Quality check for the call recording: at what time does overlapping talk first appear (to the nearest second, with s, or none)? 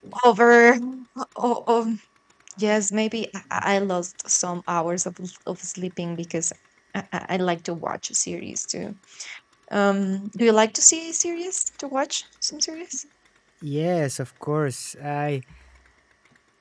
none